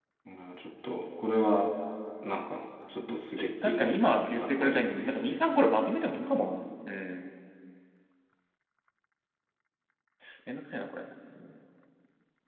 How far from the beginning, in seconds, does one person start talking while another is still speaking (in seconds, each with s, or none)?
3.6 s